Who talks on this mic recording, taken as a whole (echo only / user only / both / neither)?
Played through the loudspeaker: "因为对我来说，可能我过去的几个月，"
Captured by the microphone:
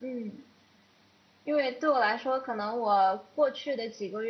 echo only